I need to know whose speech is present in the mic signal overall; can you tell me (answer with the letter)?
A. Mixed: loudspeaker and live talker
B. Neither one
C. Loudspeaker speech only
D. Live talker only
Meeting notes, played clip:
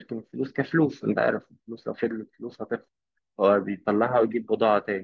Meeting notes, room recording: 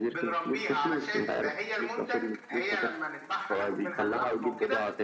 A